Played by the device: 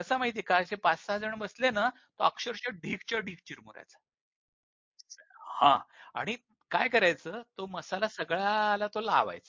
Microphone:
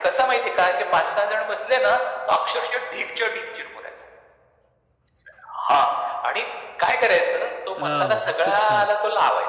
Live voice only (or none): हो. खूप छान.